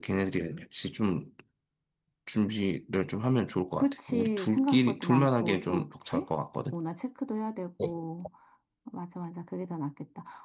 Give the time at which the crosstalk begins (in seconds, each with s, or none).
3.8 s